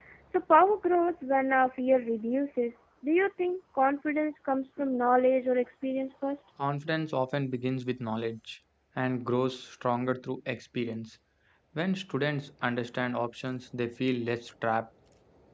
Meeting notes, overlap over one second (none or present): none